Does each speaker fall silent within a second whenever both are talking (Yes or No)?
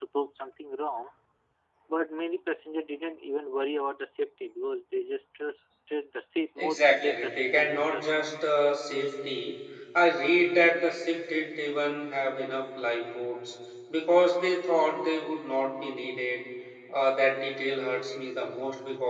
No